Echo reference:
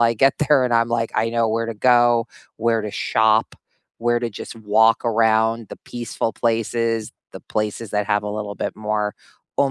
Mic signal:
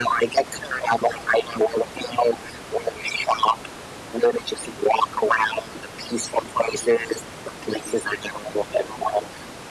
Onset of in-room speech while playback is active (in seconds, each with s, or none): none